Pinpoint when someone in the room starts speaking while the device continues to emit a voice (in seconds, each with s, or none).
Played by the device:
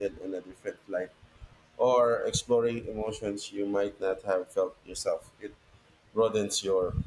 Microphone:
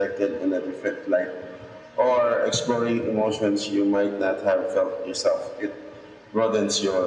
none